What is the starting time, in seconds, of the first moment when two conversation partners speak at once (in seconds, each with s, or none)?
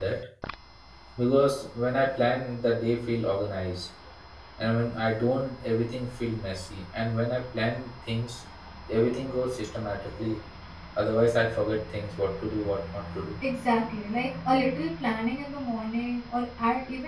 none